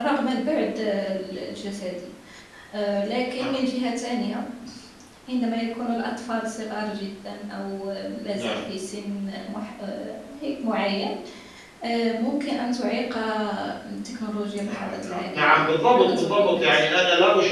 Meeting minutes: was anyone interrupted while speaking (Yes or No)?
Yes